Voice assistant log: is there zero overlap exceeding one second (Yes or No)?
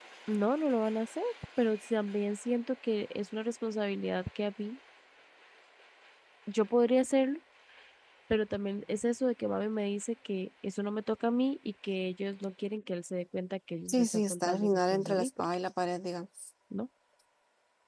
No